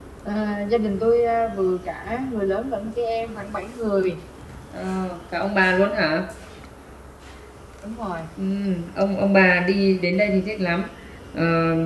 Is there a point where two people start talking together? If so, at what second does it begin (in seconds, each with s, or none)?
none